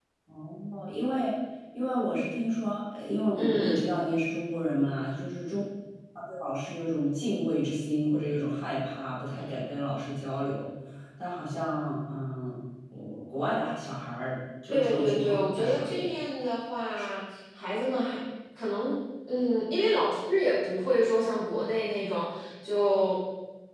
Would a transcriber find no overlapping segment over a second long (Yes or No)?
No